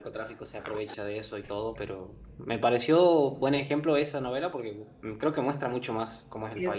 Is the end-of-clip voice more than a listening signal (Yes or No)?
Yes